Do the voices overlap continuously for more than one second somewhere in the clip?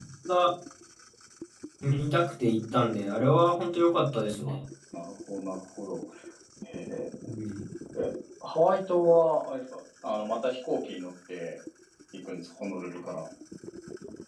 No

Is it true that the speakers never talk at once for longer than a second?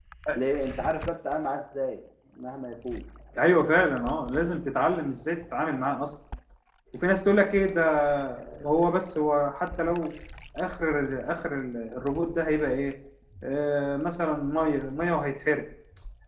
Yes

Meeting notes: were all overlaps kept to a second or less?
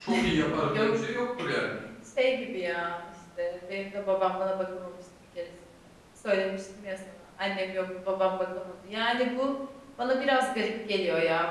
Yes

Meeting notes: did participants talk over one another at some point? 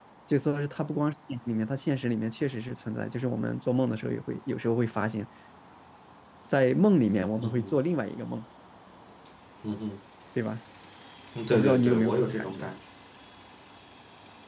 Yes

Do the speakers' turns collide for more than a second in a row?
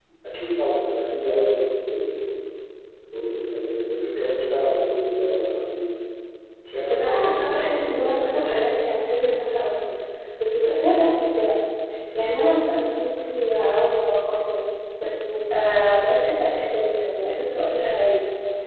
Yes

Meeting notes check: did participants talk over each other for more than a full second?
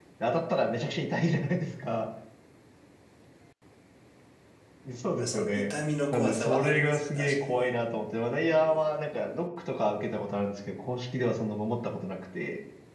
Yes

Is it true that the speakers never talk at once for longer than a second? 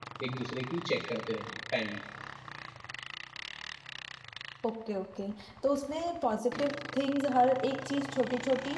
Yes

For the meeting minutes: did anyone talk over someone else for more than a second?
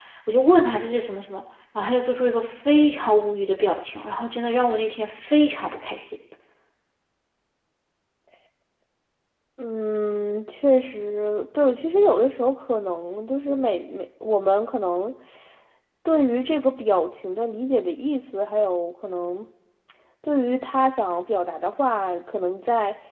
No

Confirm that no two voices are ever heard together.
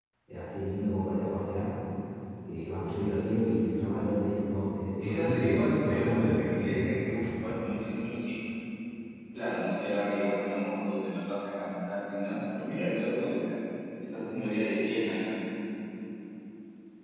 No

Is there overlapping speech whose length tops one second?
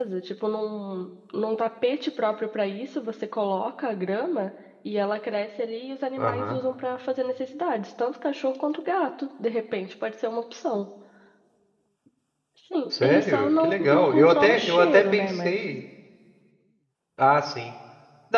Yes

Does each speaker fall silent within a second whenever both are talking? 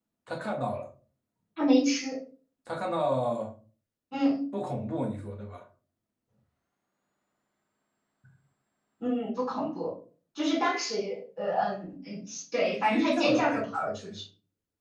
No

